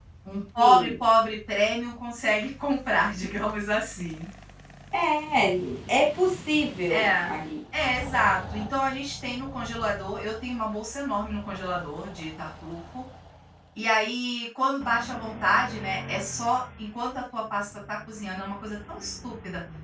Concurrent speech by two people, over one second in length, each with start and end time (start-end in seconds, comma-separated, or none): none